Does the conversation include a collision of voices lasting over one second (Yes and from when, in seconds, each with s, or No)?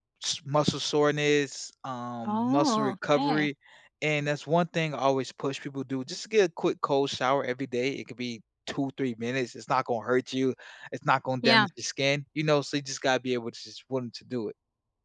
Yes, from 2.2 s